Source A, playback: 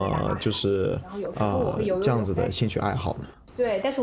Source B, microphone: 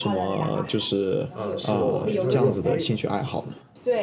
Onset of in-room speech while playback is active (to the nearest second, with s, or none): 1 s